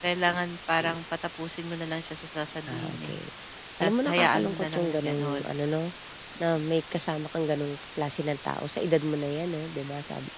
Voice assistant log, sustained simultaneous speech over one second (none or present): present